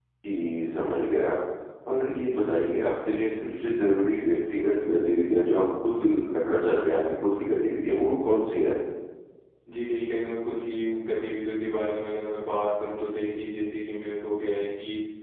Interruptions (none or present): none